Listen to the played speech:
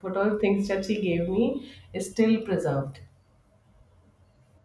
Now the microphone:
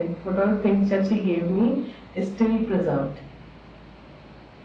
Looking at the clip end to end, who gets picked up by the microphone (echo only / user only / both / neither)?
echo only